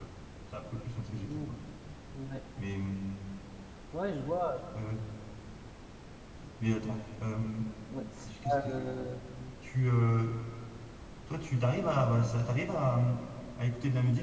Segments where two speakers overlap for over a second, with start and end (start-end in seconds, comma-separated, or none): none